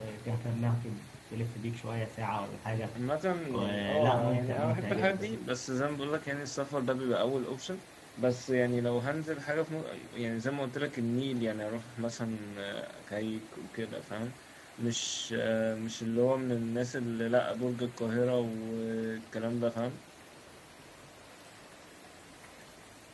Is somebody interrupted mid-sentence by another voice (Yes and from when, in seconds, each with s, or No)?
Yes, from 3.6 s